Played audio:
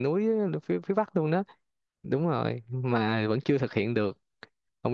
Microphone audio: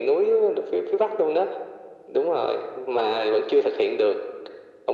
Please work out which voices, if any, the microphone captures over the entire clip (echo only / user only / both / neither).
echo only